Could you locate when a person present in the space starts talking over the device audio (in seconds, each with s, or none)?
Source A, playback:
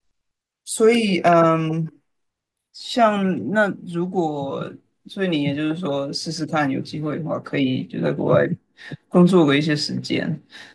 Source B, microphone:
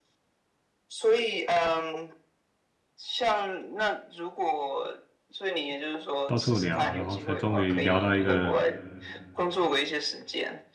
6.2 s